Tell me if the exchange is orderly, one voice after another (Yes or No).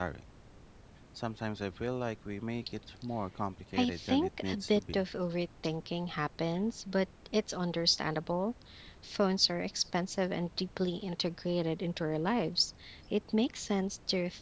No